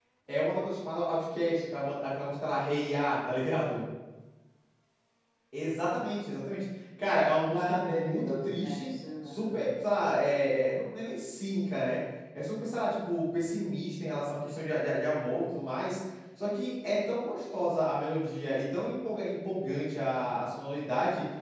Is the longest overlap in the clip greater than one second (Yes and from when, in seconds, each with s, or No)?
Yes, from 7.5 s